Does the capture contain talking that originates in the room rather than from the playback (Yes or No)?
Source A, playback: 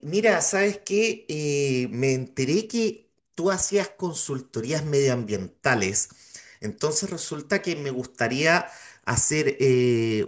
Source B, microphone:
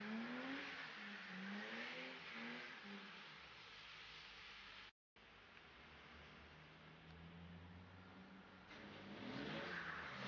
No